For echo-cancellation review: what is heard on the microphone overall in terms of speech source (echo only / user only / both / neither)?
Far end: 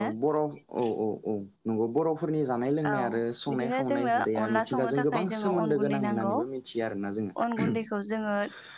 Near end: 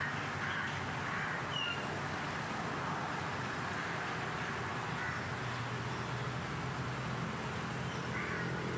neither